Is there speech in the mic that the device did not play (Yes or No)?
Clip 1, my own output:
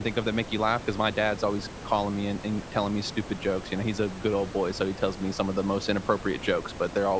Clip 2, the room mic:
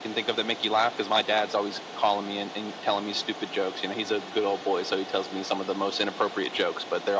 No